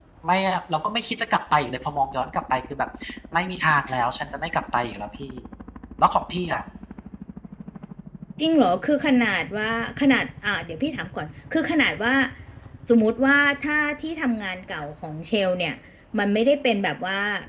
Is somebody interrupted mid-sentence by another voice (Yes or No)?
No